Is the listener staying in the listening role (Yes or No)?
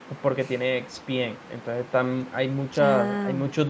Yes